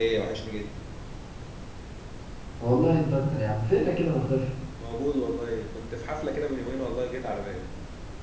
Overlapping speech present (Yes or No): No